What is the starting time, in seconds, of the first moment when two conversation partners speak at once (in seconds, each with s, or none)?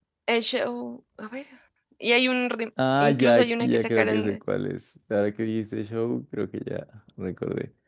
2.8 s